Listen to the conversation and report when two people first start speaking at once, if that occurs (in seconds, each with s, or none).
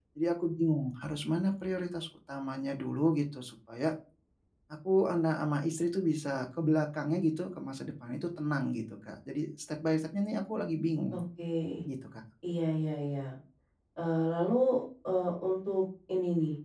none